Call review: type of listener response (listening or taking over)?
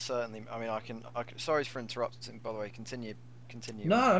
taking over